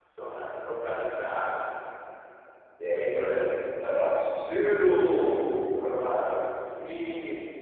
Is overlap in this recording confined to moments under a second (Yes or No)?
Yes